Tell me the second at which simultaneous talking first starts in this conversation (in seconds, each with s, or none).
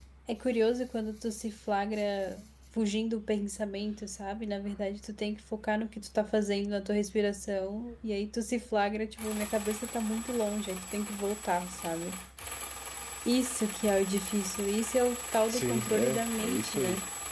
15.5 s